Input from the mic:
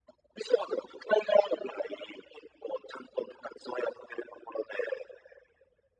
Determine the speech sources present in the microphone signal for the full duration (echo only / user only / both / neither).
echo only